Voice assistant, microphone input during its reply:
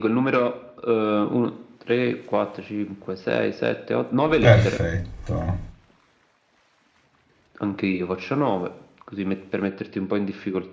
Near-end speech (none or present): present